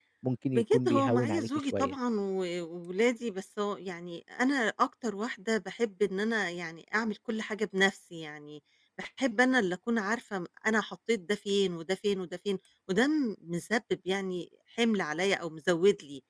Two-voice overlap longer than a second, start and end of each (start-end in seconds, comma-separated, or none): 0.5-1.9